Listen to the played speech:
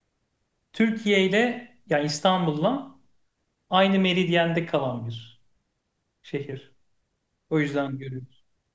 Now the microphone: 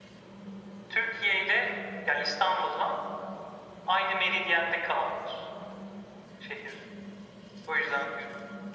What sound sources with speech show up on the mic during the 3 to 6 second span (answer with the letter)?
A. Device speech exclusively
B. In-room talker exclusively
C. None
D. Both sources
A